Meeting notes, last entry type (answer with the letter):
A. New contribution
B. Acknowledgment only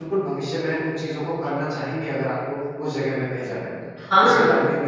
A